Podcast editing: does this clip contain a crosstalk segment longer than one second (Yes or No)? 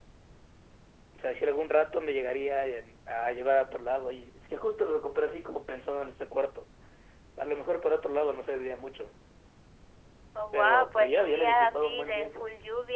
Yes